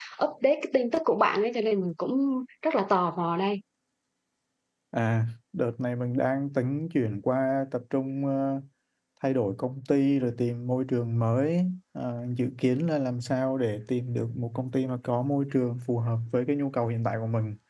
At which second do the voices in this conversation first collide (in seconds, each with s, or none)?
none